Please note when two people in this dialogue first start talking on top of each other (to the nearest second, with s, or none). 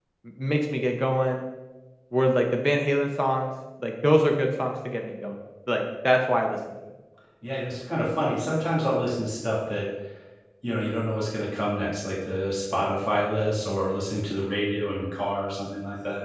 none